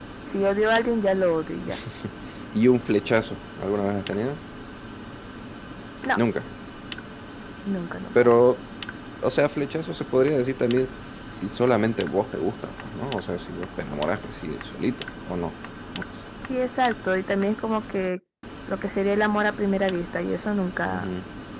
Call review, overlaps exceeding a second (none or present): none